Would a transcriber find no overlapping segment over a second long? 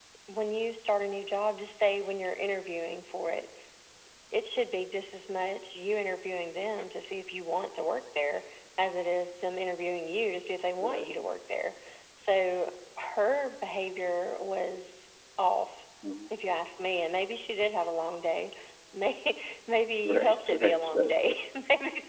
No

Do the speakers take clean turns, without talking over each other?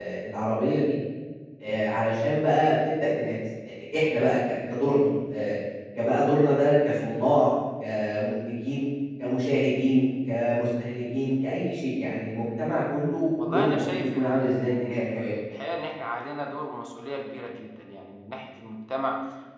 No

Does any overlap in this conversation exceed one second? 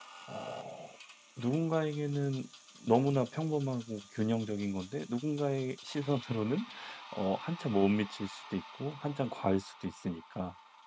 No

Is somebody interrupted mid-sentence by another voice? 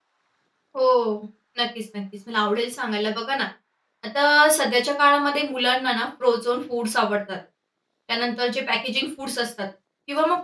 No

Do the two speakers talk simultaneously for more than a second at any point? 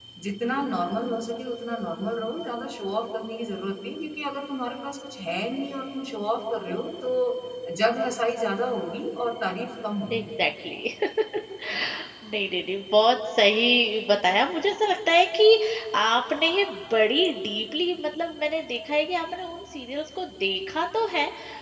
No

